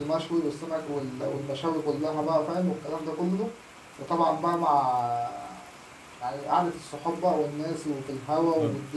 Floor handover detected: Yes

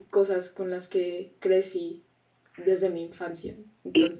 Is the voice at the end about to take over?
Yes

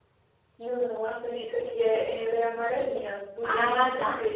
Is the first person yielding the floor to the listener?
Yes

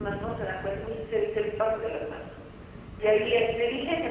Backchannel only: Yes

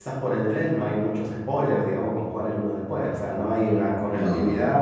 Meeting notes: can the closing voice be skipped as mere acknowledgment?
Yes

